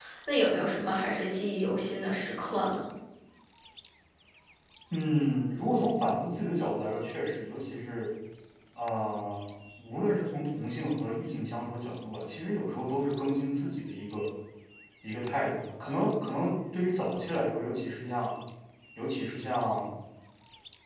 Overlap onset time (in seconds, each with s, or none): none